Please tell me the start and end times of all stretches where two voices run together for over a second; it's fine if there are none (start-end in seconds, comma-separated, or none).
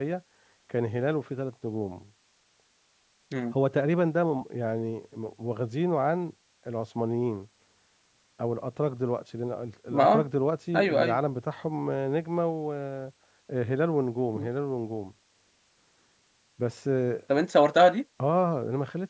none